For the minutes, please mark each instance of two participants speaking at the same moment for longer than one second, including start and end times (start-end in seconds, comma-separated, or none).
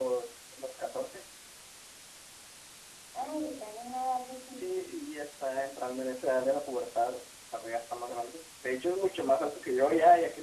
none